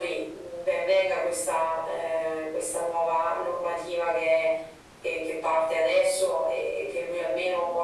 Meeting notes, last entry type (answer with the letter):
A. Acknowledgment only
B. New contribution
A